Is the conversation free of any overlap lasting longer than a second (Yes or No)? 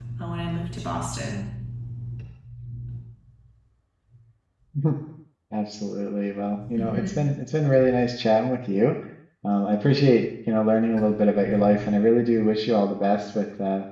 Yes